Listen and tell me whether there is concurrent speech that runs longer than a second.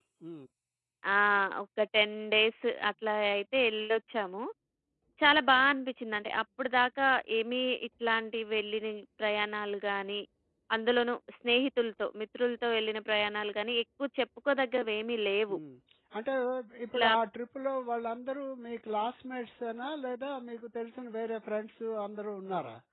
No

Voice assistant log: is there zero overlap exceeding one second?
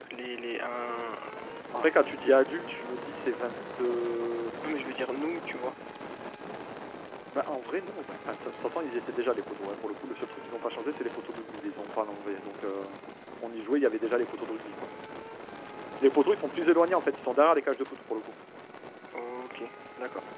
Yes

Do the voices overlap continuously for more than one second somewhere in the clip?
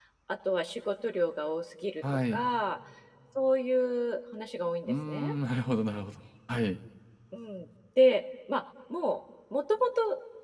No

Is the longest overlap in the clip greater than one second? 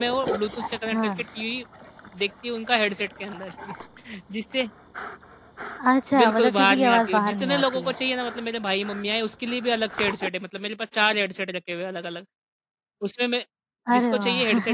Yes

